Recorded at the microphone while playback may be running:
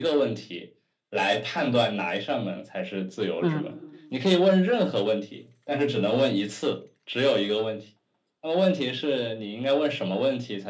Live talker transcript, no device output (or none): 嗯